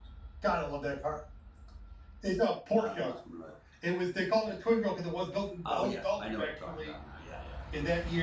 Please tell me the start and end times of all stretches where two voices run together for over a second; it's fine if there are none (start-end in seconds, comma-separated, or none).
5.6-6.9